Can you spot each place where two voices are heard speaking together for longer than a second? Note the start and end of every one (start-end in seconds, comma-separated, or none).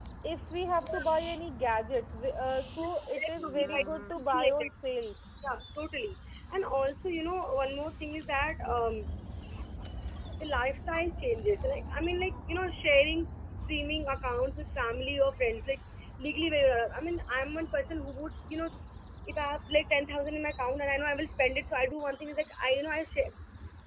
2.7-4.7